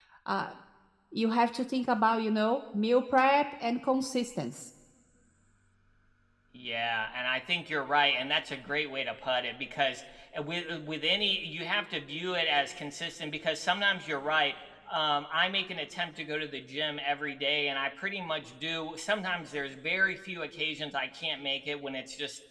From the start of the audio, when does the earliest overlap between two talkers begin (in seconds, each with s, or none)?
none